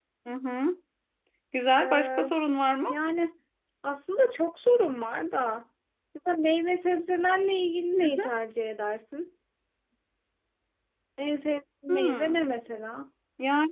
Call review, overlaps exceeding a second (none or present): none